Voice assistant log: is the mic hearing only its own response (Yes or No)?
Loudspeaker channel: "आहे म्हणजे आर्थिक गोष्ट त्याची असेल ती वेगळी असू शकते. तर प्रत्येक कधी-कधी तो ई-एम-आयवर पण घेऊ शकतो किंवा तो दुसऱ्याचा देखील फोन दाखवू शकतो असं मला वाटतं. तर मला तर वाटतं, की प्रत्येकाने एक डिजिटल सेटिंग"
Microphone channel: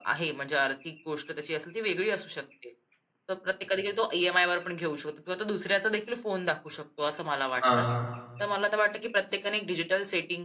No